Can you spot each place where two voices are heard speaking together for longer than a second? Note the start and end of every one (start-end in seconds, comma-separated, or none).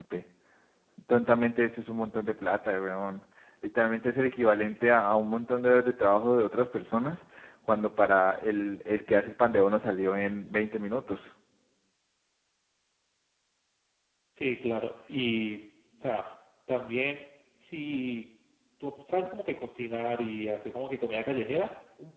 none